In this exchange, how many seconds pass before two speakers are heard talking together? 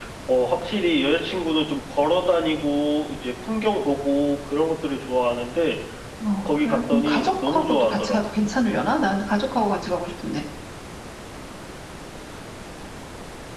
6.4 s

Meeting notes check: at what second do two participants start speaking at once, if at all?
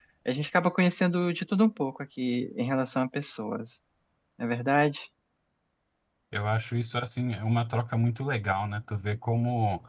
none

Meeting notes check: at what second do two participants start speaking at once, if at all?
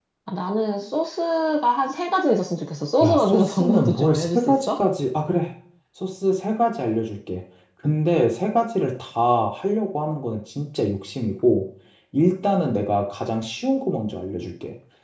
3.0 s

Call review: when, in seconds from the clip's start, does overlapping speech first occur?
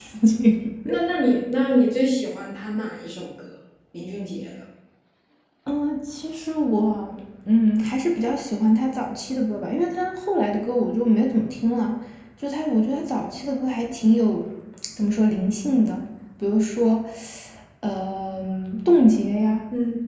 none

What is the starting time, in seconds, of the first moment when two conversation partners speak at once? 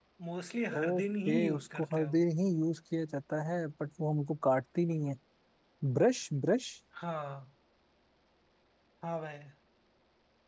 0.8 s

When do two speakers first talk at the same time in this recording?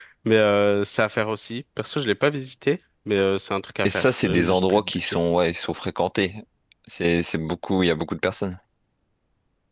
3.8 s

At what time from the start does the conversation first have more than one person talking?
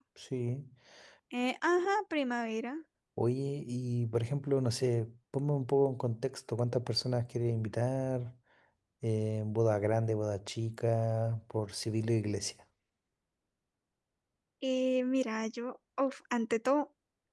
none

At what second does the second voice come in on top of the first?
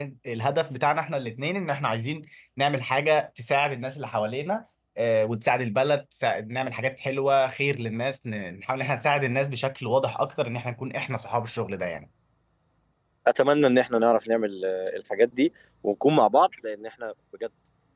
none

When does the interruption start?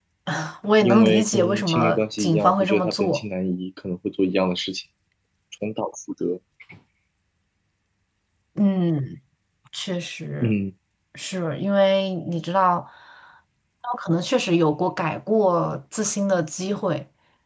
0.8 s

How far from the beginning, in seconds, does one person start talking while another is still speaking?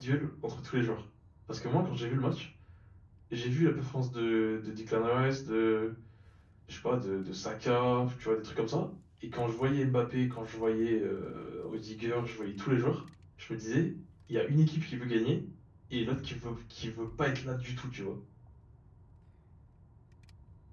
none

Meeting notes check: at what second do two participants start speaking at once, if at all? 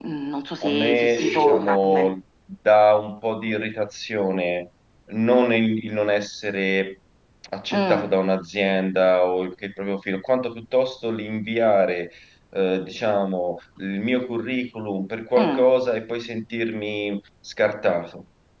0.6 s

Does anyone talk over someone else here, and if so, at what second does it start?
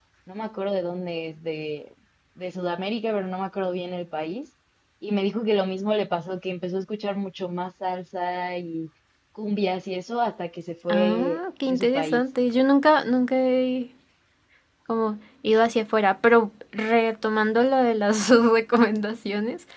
10.9 s

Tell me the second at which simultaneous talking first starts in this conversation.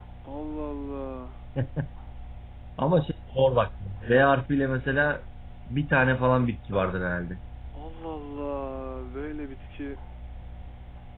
none

